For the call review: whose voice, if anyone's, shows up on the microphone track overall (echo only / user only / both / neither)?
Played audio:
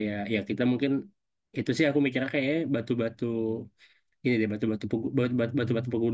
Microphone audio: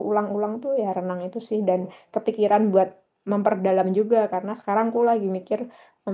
user only